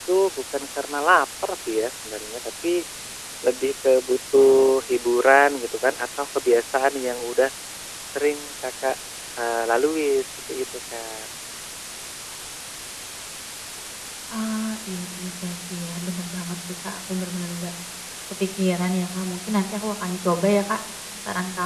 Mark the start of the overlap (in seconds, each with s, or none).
none